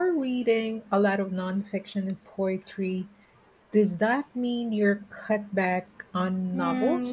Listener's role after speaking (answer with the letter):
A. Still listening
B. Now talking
B